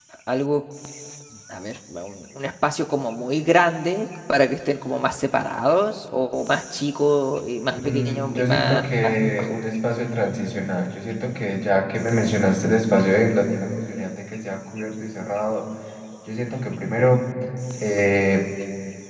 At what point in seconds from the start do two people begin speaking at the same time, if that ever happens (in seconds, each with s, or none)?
7.7 s